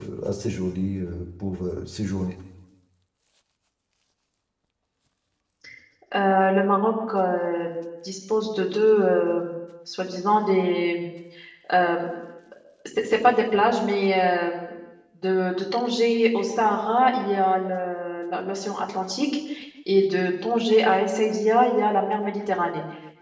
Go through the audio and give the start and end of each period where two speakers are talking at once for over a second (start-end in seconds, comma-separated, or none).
none